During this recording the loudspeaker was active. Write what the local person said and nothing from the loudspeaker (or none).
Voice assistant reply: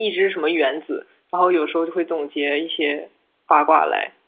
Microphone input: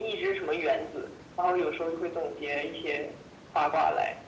none